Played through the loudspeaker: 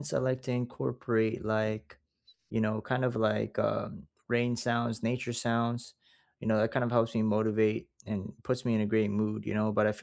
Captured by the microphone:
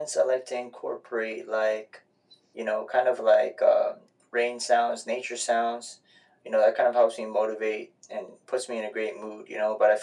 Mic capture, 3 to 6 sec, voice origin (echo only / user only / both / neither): echo only